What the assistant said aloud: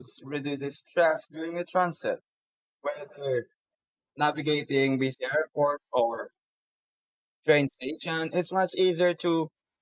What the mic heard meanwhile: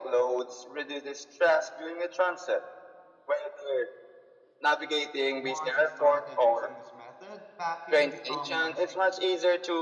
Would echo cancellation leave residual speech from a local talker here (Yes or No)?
Yes